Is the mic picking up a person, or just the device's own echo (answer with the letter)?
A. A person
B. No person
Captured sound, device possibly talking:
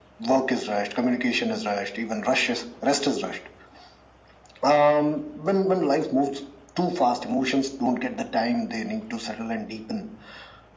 B